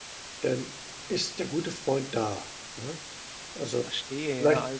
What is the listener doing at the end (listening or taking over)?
taking over